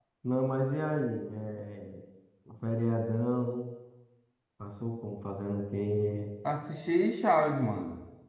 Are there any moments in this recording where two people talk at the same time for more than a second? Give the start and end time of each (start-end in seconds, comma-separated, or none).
none